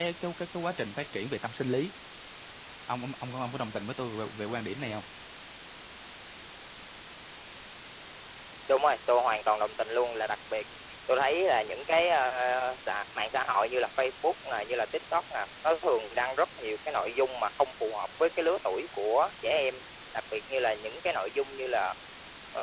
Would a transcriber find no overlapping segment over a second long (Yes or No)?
Yes